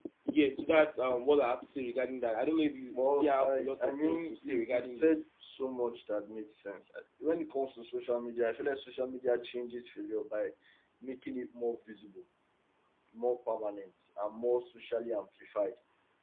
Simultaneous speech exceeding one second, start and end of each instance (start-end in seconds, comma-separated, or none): 2.9-5.2